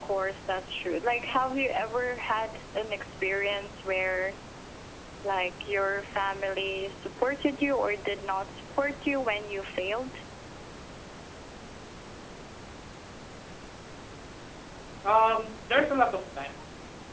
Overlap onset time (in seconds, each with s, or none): none